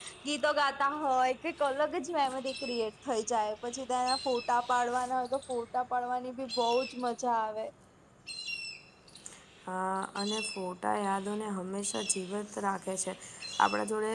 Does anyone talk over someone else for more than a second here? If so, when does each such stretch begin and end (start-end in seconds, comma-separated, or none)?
none